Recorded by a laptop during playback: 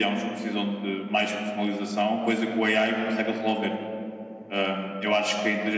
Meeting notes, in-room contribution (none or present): none